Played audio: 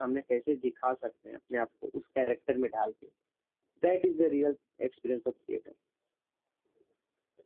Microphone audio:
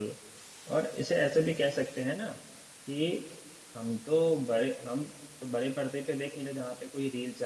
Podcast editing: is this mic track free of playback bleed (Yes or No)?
Yes